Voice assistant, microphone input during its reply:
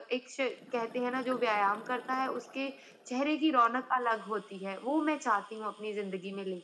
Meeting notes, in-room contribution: none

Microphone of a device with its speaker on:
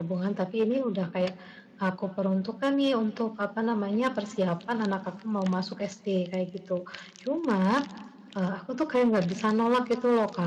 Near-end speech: present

